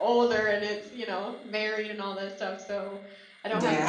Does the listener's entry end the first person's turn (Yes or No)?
Yes